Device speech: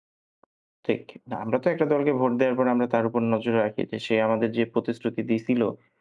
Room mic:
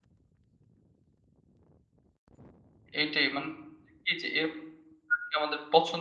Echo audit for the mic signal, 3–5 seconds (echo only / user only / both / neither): user only